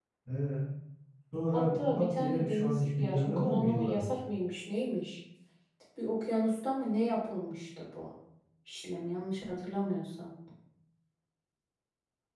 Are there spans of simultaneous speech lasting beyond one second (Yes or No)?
Yes